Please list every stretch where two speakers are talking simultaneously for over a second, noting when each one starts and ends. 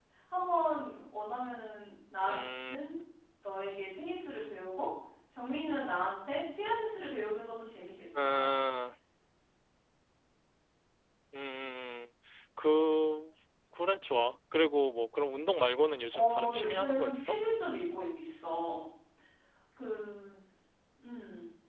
16.1-17.4

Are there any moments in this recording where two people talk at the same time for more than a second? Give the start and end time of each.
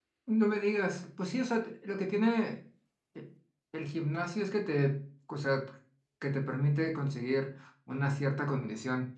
none

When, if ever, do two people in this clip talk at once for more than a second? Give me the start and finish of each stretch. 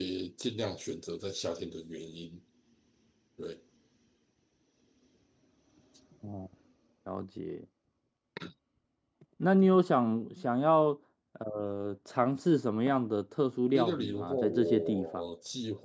13.7-15.3

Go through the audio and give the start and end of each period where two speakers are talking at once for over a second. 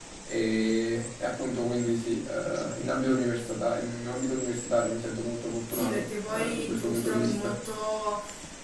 5.7-7.5

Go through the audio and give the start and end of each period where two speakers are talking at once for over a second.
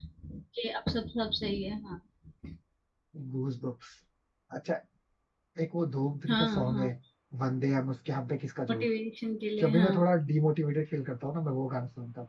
none

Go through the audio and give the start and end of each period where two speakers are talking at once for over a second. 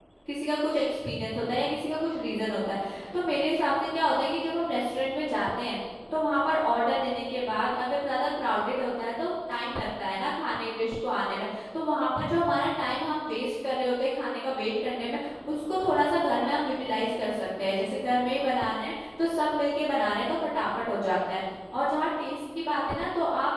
none

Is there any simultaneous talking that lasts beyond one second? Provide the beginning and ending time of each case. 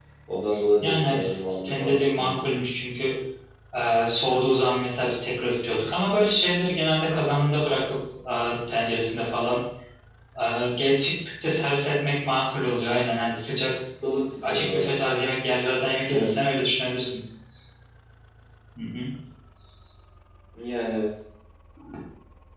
0.8-2.7

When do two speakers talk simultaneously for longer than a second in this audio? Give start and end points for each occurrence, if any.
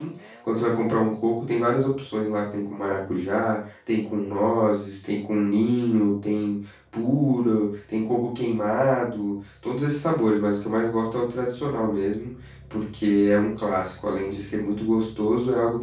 none

